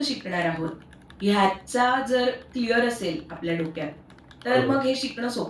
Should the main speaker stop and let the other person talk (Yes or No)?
No